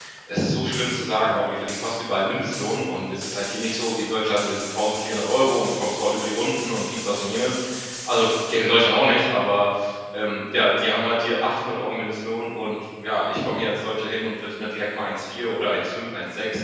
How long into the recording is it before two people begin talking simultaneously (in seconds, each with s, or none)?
none